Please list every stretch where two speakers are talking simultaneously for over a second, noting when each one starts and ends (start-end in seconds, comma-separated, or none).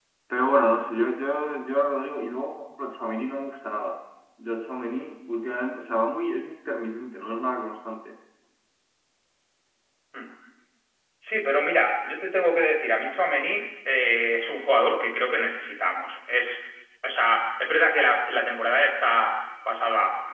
none